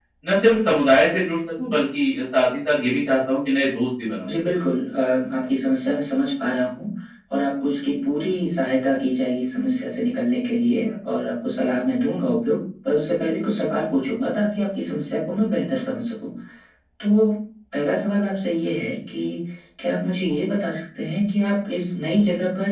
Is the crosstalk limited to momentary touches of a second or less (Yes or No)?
Yes